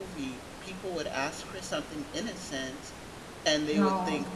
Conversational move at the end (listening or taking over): listening